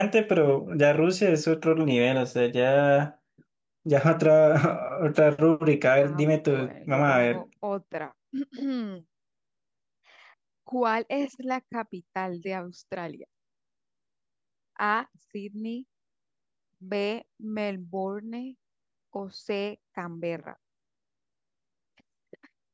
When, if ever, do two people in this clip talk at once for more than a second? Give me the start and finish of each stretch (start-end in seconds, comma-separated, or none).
6.0-7.4